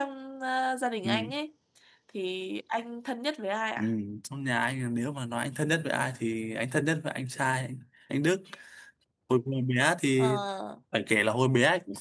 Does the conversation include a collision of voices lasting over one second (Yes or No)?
No